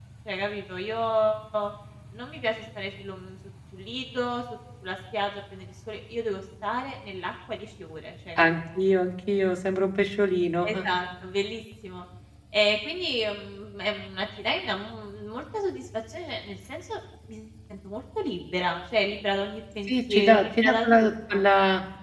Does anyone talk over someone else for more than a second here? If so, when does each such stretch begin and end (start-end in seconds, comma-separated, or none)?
19.9-21.4